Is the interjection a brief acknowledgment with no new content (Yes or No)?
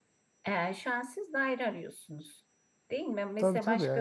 No